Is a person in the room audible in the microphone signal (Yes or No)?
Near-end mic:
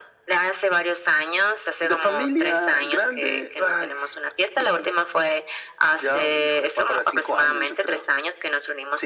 No